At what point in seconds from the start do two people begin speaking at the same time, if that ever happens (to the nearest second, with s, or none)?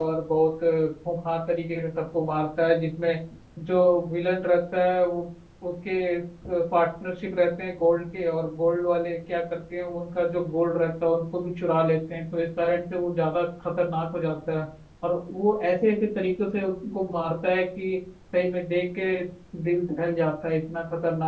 none